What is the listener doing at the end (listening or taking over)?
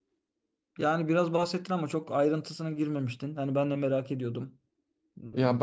taking over